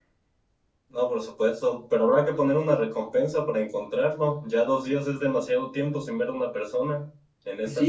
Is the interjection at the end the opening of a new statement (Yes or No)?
Yes